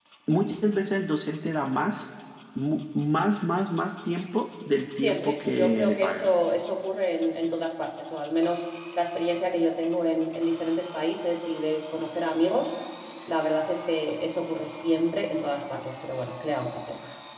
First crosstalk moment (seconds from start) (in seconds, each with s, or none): 5.0 s